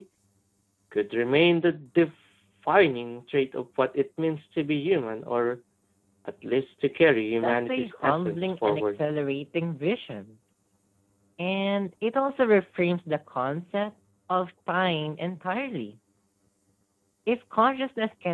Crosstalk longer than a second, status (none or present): present